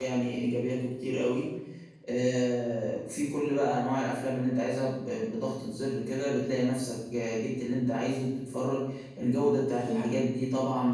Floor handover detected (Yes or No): No